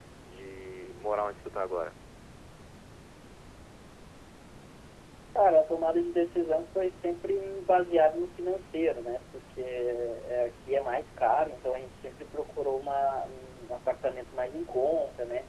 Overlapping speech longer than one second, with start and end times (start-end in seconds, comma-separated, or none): none